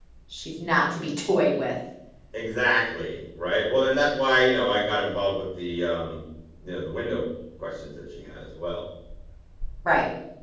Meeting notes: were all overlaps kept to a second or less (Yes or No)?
Yes